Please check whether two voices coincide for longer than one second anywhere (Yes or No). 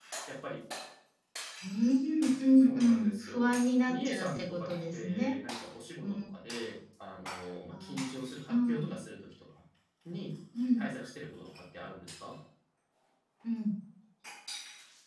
Yes